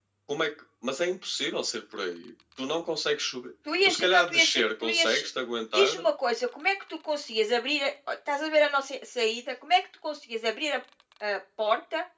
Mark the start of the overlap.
4 s

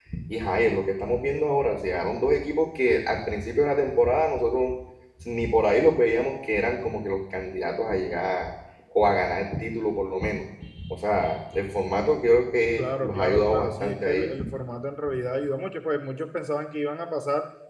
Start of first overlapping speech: 13 s

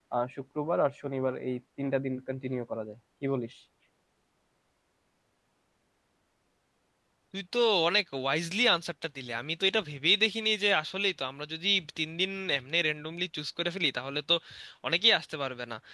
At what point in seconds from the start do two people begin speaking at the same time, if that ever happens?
none

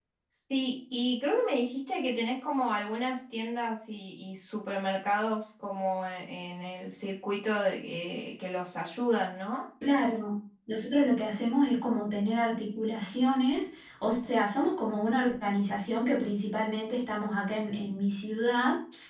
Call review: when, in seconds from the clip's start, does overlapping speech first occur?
none

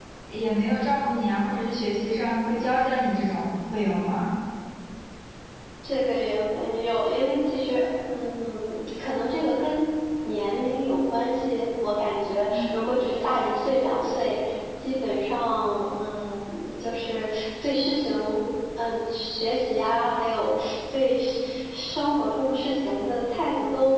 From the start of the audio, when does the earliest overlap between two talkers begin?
none

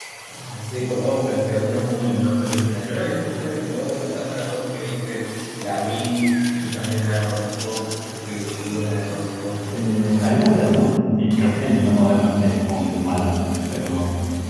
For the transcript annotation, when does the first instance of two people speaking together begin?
none

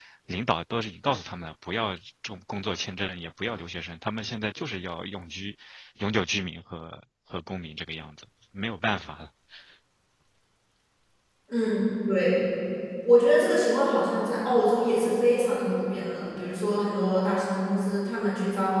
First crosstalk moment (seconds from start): none

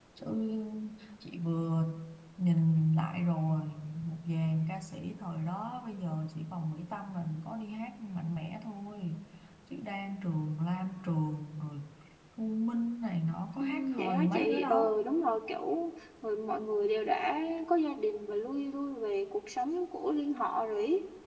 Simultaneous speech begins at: 14 s

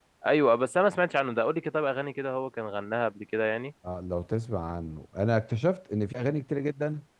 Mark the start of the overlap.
none

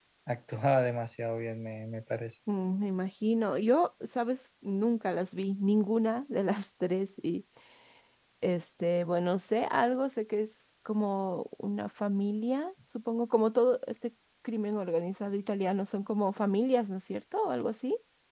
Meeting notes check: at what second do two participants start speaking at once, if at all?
none

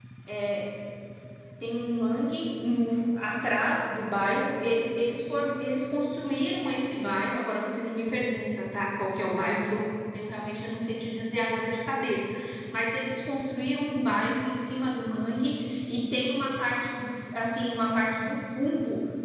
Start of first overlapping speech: none

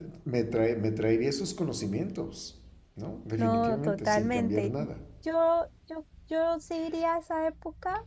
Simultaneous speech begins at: 3 s

